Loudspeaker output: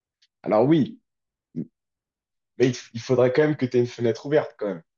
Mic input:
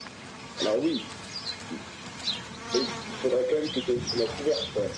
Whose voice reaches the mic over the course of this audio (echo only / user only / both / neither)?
echo only